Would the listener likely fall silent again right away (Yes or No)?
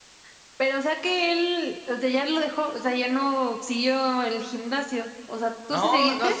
No